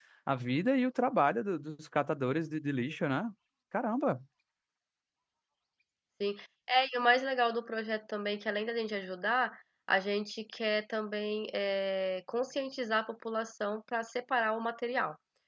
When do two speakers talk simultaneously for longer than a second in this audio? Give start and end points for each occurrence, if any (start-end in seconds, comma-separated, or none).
none